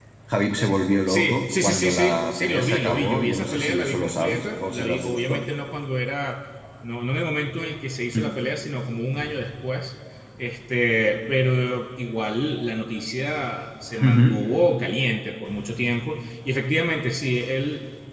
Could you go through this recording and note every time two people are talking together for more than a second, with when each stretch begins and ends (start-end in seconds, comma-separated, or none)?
1.1-5.4